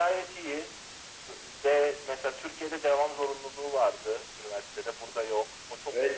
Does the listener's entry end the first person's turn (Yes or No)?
Yes